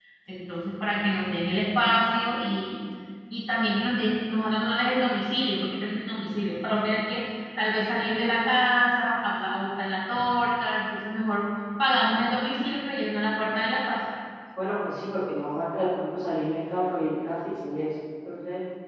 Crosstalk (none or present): none